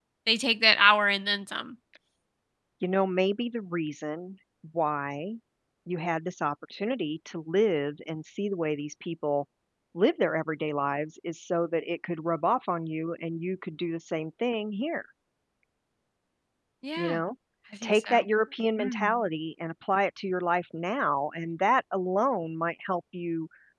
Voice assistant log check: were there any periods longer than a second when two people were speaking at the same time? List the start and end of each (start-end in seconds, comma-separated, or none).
none